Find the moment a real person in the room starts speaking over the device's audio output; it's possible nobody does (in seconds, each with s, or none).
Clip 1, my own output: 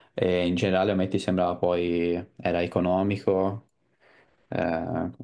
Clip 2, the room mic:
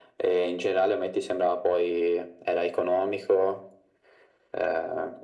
none